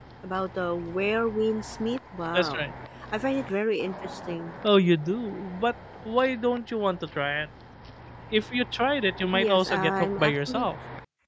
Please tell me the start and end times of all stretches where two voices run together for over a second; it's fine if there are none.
9.3-10.7

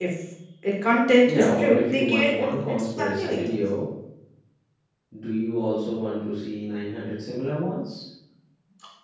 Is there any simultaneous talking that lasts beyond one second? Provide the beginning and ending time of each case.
1.2-3.6

